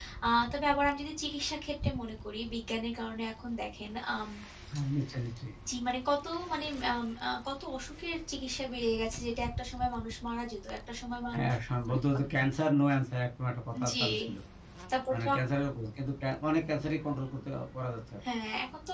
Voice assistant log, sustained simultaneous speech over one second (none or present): none